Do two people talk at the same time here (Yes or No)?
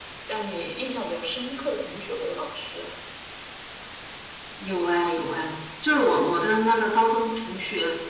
No